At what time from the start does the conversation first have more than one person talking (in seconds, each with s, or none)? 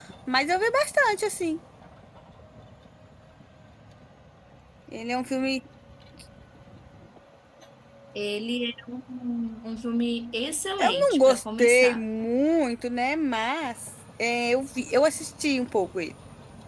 10.8 s